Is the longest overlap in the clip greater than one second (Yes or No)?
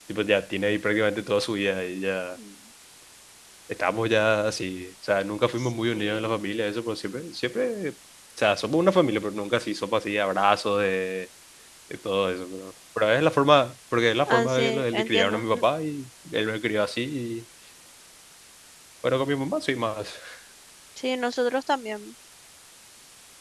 Yes